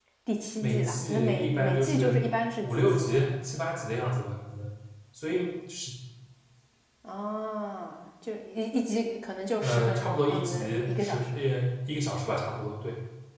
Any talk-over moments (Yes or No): Yes